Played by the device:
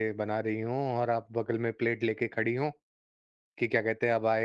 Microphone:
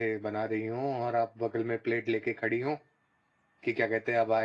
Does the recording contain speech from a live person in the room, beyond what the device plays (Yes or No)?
No